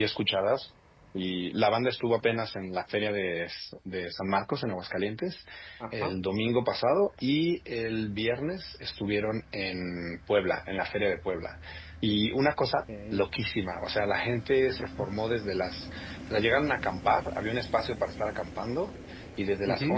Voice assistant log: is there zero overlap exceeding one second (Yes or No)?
Yes